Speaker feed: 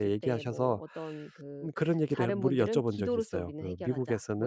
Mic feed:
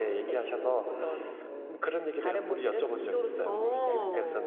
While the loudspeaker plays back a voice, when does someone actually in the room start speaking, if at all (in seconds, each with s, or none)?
3.4 s